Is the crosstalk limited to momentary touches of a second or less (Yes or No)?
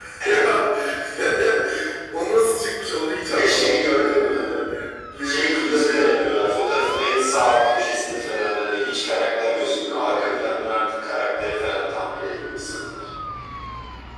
No